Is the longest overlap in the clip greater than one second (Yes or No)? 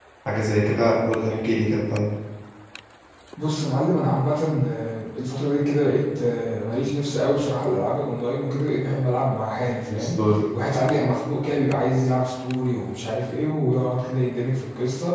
No